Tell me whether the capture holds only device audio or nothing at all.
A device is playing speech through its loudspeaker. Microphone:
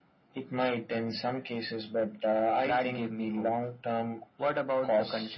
Yes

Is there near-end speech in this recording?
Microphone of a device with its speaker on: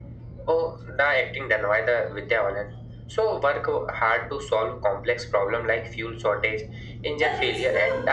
Yes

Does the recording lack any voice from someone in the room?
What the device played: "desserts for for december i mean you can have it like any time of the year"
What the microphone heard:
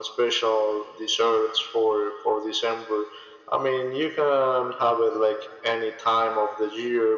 Yes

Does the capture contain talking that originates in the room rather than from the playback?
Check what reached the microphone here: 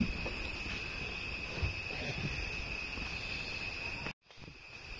No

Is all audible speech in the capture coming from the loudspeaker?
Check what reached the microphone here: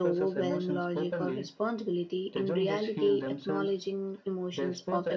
No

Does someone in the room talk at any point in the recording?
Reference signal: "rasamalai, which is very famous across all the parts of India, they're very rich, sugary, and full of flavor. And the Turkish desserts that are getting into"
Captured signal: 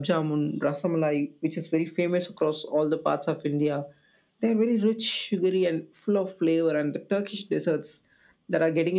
No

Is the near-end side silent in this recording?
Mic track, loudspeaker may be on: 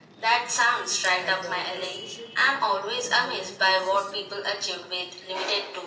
No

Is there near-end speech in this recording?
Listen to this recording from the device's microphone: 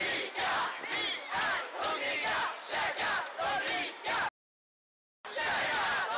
No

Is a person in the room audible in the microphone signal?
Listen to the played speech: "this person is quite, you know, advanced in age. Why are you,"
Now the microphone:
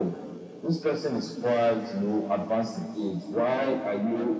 Yes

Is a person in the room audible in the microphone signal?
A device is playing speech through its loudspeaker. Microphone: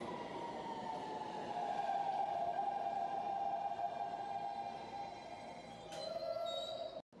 No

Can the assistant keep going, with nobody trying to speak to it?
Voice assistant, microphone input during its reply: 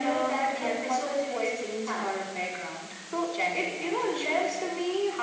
Yes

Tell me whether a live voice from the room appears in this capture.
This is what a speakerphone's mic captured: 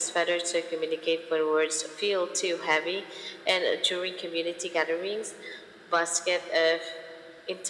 No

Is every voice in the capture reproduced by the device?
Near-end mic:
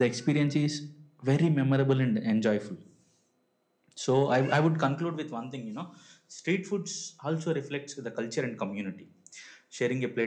Yes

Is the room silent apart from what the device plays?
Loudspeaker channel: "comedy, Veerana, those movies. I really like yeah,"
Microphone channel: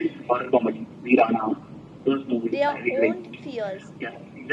No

